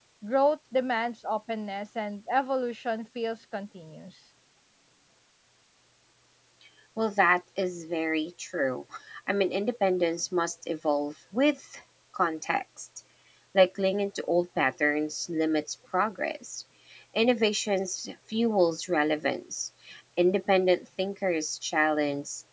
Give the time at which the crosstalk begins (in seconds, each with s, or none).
none